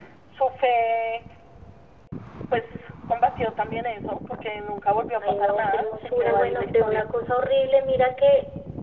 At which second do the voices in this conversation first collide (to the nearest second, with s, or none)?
5 s